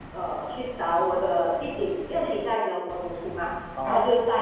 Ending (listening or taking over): listening